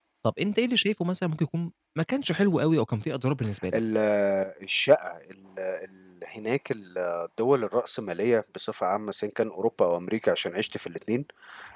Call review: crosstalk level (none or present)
none